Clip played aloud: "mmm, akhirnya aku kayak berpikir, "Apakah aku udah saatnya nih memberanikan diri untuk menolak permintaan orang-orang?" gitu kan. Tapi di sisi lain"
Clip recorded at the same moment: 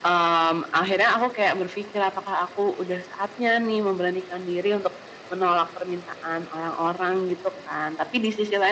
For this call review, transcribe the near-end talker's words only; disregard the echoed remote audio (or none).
none